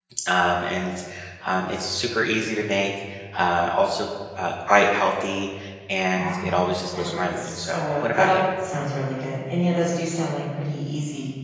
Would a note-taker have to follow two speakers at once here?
Yes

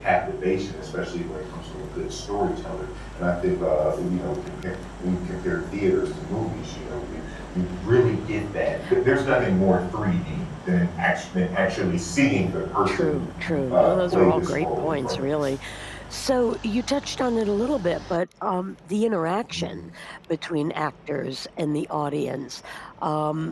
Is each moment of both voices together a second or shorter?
No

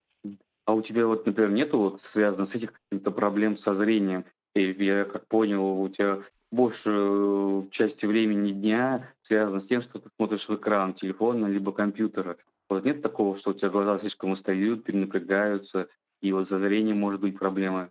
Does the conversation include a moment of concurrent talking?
No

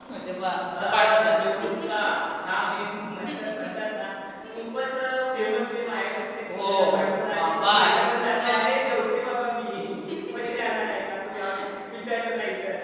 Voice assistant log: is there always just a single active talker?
No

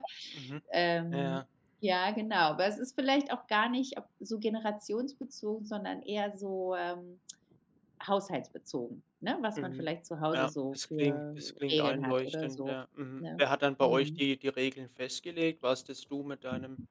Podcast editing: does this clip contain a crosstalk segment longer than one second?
Yes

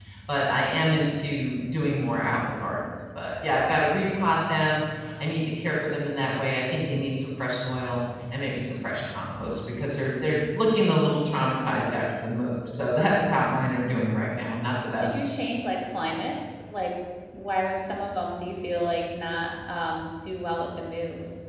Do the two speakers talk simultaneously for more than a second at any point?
No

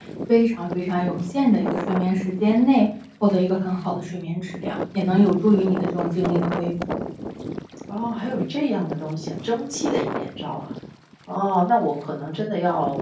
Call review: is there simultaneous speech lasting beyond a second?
No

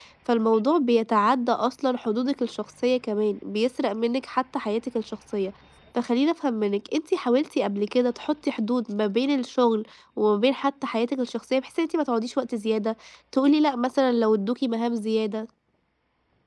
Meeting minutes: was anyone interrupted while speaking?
No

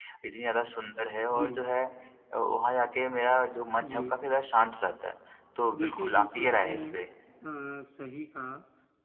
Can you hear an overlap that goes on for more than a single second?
Yes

